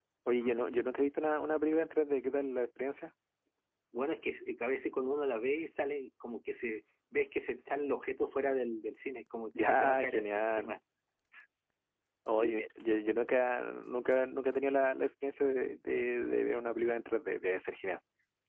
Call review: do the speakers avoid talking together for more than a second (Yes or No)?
No